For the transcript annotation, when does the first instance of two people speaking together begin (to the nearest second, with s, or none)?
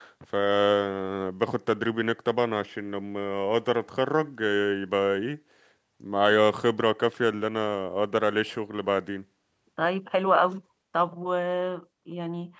none